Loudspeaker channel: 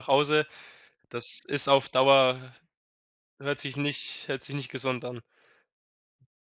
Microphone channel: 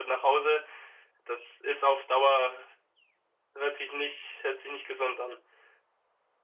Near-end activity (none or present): none